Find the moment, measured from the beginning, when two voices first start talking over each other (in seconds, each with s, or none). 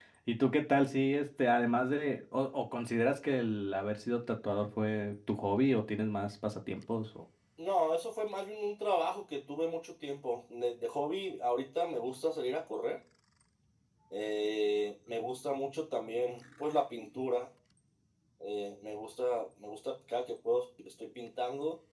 none